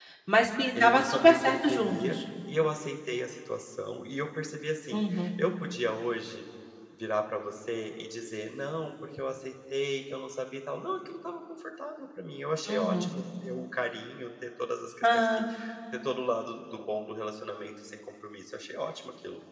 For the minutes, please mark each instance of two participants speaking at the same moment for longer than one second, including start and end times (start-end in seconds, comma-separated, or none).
0.7-2.2